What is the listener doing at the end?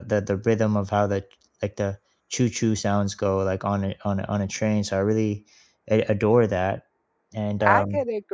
taking over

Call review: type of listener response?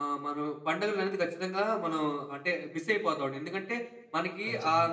listening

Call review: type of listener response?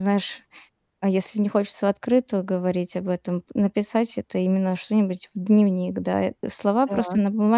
listening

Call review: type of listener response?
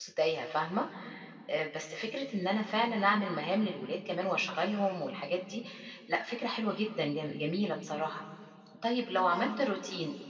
listening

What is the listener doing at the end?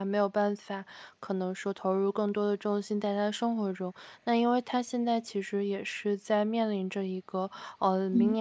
listening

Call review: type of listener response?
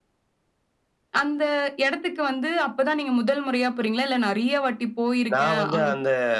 taking over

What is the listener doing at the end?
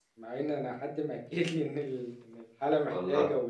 listening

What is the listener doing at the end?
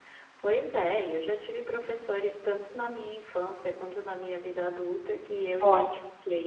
listening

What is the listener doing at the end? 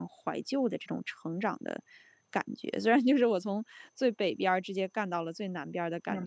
taking over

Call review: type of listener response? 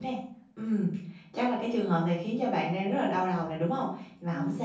listening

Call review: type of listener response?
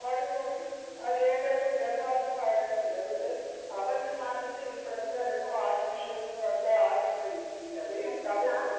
taking over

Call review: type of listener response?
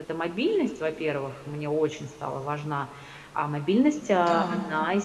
listening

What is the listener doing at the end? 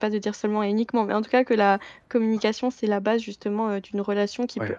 listening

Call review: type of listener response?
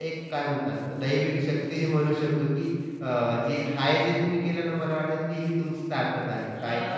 listening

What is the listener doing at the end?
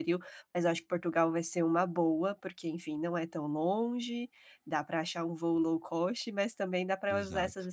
listening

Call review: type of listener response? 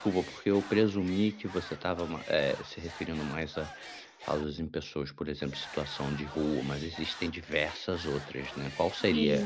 listening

